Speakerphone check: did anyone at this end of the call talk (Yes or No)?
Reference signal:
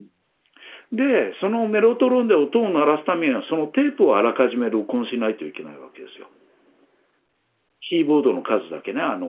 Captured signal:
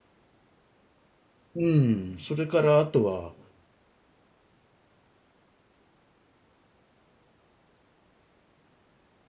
Yes